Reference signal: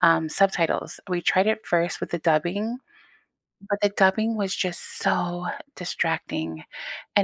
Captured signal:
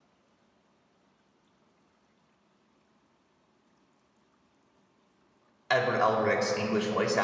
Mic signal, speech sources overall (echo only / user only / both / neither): user only